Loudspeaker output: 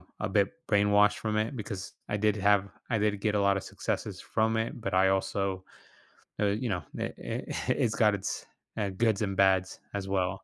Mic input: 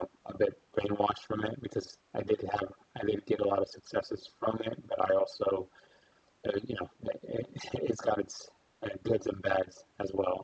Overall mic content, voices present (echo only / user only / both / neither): echo only